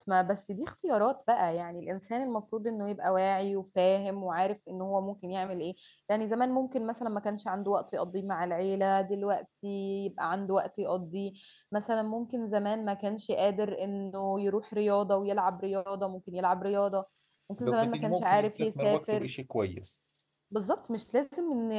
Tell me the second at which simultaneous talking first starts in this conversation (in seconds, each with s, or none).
17.7 s